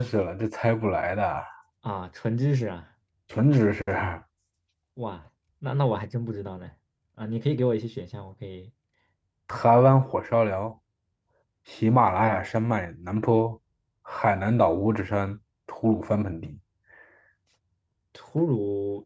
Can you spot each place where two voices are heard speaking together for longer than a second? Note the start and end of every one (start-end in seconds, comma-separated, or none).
none